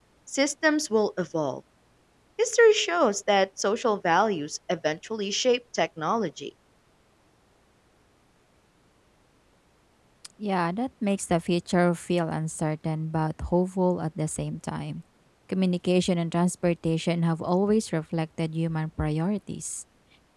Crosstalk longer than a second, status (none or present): none